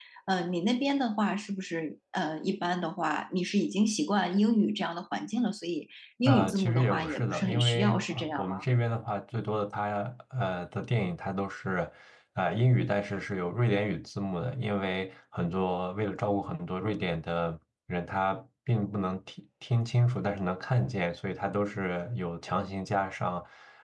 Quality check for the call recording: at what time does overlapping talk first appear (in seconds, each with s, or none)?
6.2 s